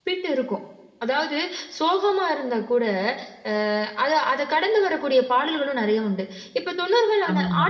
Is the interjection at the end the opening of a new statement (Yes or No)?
No